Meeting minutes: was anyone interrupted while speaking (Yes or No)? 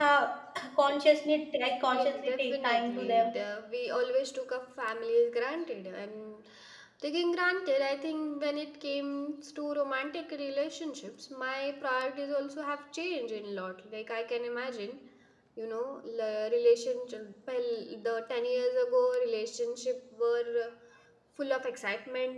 Yes